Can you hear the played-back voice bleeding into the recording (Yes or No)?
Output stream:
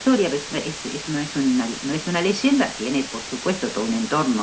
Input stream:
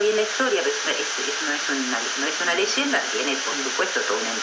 Yes